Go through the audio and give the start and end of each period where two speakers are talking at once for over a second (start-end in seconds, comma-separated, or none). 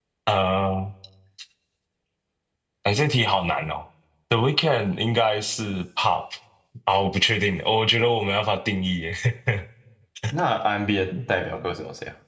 none